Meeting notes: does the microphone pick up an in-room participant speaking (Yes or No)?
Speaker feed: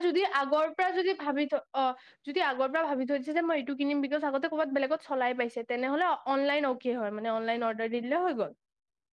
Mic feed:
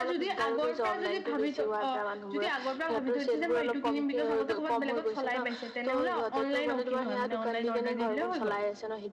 Yes